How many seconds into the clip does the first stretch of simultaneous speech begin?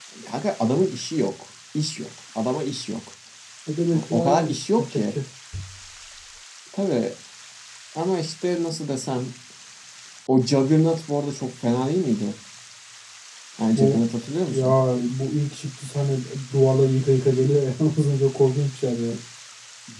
3.9 s

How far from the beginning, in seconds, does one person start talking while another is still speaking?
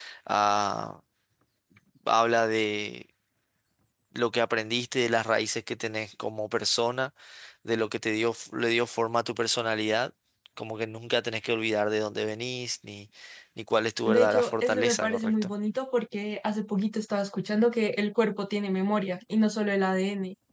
14.1 s

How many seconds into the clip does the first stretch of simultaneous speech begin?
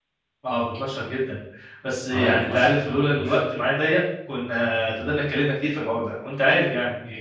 2.1 s

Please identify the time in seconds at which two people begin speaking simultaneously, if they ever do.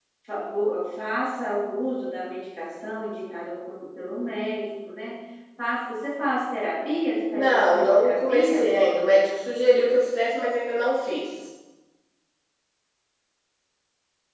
7.3 s

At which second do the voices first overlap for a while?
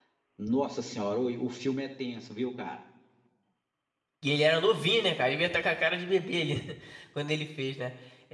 none

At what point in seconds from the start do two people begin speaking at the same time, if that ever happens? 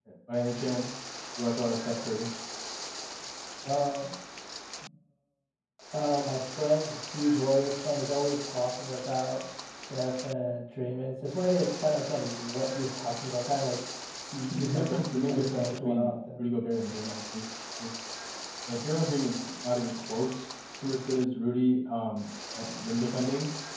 14.5 s

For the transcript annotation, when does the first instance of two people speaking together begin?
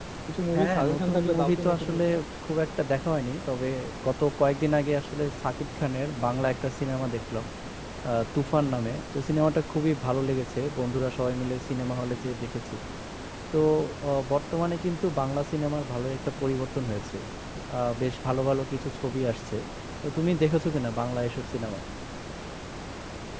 0.6 s

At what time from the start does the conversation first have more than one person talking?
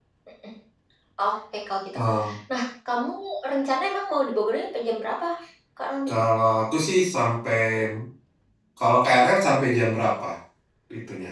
none

